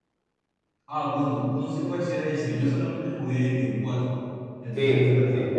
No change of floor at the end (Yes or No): No